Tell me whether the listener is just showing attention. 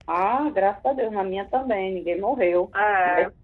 Yes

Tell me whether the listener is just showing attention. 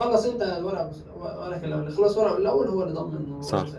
No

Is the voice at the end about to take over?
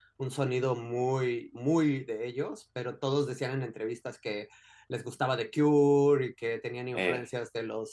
No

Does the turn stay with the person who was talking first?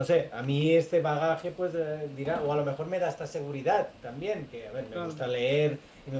Yes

